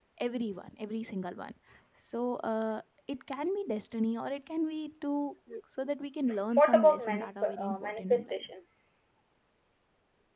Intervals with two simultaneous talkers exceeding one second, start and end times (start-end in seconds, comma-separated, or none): 6.5-8.4